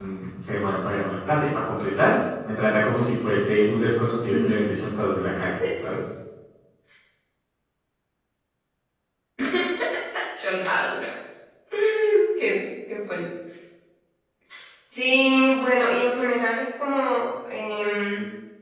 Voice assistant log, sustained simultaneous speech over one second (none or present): none